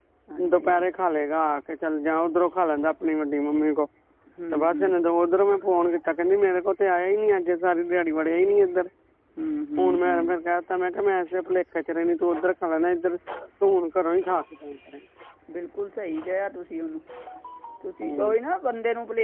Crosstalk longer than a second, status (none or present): none